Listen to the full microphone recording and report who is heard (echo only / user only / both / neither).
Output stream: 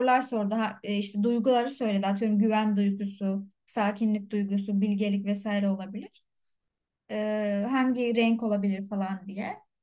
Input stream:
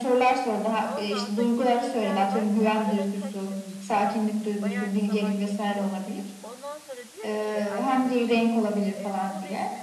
both